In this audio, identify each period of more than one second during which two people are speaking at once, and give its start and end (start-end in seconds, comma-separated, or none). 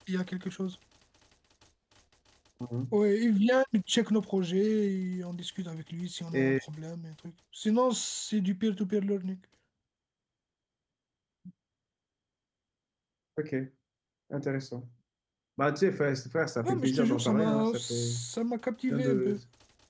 16.6-18.1